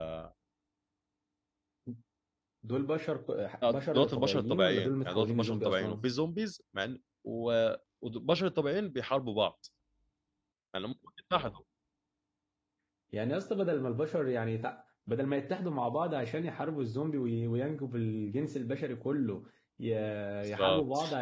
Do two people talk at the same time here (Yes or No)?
Yes